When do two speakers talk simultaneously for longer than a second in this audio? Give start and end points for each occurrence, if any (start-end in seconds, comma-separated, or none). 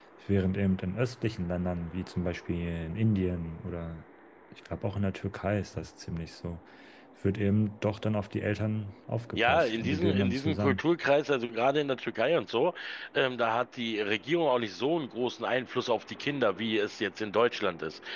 9.3-10.8